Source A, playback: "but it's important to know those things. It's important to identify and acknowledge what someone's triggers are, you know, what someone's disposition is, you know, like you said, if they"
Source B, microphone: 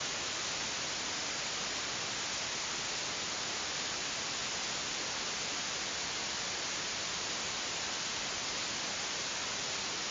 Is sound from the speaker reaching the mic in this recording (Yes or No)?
No